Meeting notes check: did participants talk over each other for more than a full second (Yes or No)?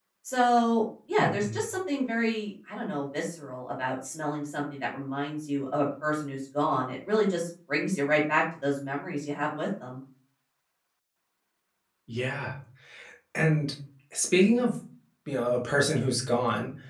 No